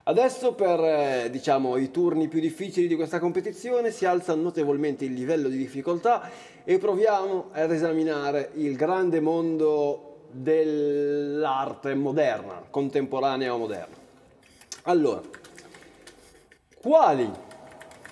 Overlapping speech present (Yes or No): No